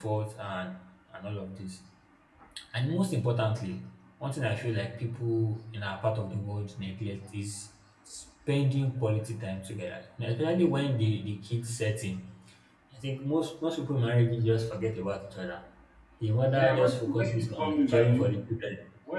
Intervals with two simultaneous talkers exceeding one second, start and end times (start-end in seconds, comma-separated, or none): 16.6-18.3